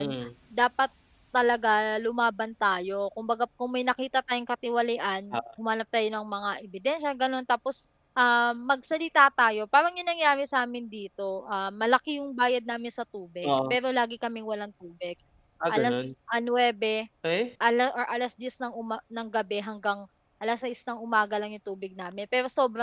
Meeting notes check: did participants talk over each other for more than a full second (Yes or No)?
No